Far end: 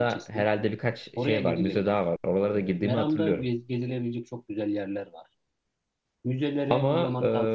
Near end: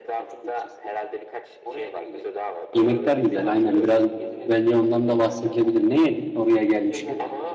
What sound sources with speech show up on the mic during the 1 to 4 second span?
both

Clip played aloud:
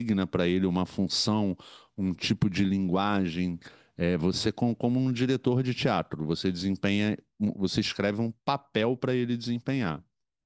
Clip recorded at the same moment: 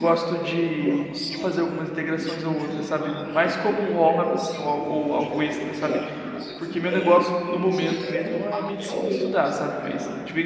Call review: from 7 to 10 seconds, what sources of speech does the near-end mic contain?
both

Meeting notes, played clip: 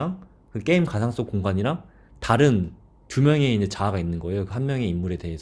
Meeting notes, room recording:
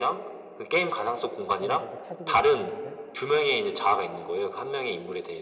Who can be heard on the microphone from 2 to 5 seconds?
both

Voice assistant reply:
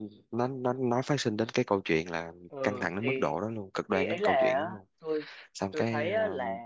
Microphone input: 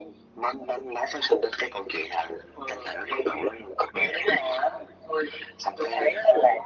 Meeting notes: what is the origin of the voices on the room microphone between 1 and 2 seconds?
echo only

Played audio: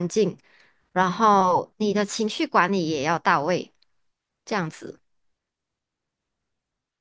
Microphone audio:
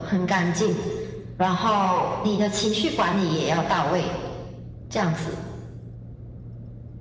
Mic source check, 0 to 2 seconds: echo only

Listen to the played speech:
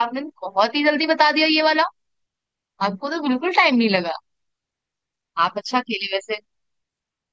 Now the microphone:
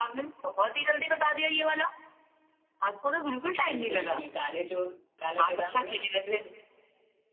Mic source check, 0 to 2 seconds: echo only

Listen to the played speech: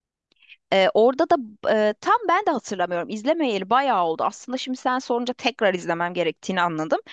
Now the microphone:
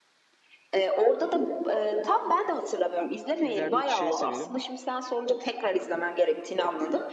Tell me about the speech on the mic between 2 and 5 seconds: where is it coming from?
both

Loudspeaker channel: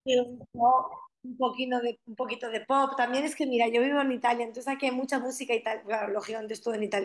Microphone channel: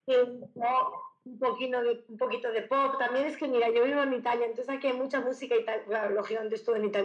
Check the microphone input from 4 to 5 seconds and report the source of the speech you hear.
echo only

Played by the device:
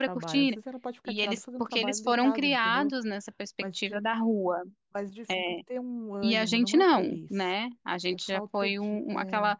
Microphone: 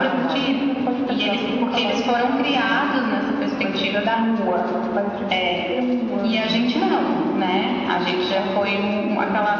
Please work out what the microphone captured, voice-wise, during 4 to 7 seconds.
echo only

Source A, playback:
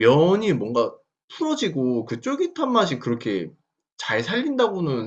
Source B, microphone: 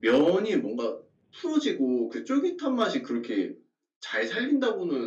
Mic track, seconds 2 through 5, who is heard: echo only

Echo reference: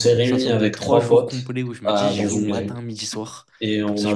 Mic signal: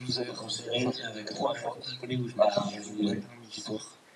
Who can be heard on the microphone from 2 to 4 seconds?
echo only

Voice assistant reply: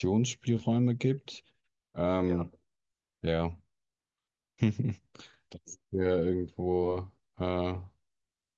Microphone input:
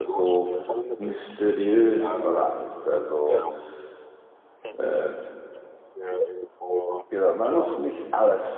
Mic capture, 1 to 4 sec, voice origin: both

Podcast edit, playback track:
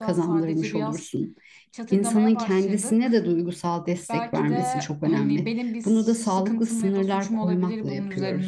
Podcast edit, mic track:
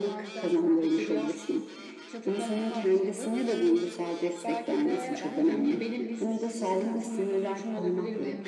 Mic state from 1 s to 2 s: echo only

